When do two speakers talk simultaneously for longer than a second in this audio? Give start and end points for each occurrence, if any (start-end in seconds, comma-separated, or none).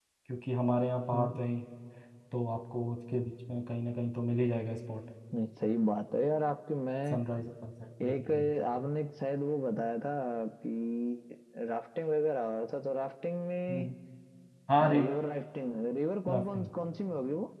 none